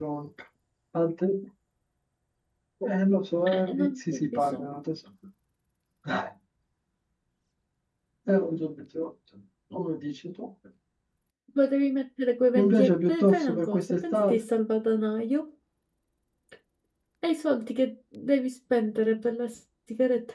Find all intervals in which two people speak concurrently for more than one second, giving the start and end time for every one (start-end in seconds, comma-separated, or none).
3.5-4.8, 12.6-14.4